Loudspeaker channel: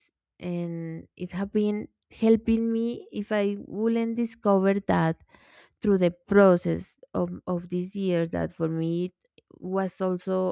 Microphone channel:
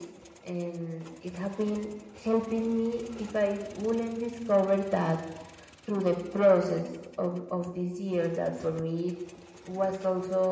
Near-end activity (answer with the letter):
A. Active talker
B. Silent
B